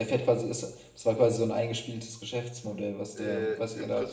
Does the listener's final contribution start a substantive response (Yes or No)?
Yes